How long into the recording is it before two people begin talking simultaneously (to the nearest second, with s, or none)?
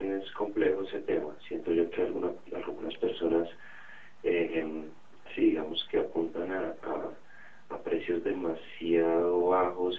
none